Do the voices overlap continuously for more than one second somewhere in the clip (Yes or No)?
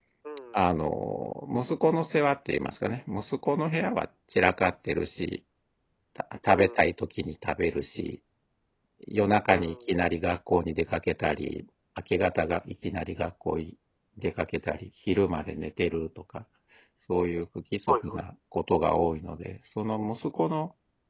No